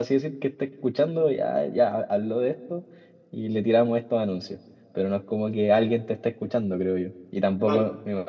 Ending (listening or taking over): listening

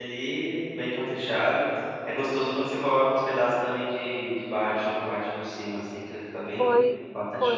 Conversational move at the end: taking over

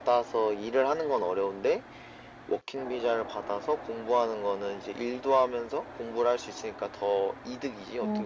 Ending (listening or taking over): taking over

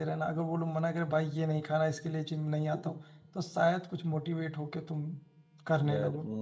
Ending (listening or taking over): taking over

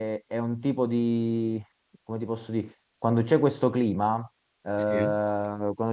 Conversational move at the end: listening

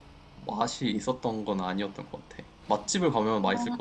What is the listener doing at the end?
taking over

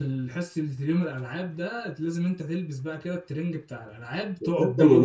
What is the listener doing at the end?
taking over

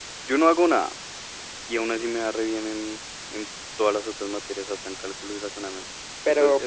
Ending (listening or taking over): taking over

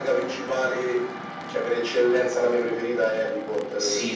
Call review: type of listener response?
taking over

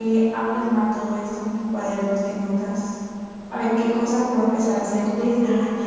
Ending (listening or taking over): listening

